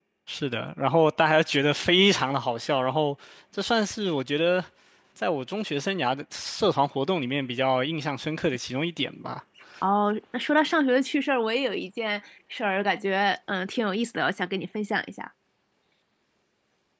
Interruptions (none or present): none